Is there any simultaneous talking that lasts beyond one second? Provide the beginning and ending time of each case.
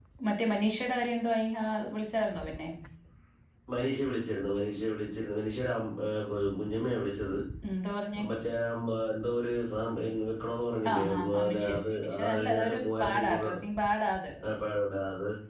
10.9-13.6

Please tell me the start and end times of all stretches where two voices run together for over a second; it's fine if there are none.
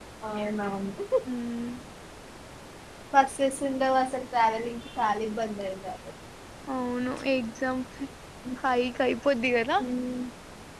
none

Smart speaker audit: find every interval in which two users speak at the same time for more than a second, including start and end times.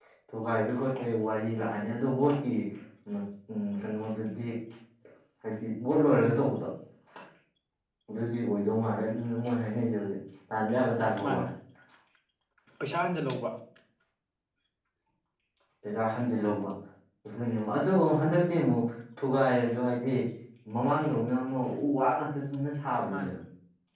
none

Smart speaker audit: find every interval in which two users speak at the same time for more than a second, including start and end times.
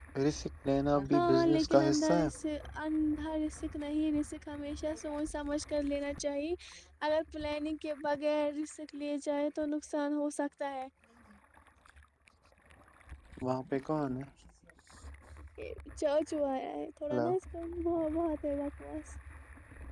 1.0-2.3

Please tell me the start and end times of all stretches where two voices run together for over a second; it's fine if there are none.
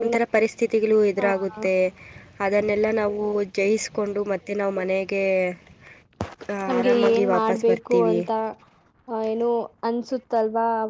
6.8-8.2

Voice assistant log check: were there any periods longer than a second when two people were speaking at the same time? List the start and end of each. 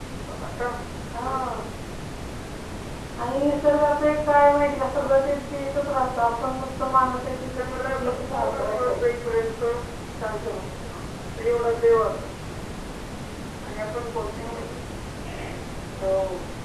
7.2-8.9

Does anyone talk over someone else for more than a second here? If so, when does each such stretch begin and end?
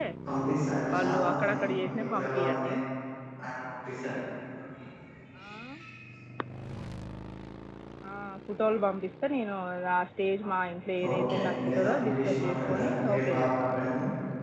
0.9-2.7, 11.1-13.5

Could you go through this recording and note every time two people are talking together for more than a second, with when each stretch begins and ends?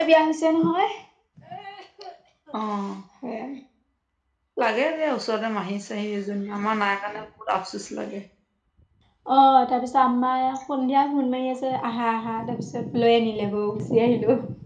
none

